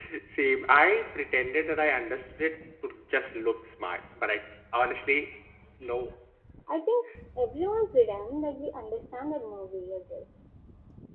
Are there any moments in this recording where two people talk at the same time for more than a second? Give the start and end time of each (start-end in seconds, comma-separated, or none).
none